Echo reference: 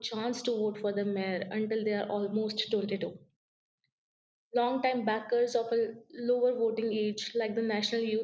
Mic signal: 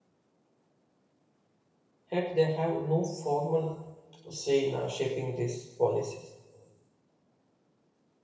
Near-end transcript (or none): Yet they have no formal say in uh, shaping these policies.